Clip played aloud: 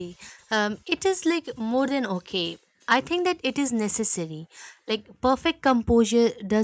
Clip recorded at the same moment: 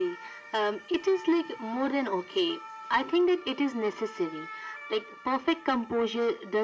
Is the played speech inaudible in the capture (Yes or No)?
No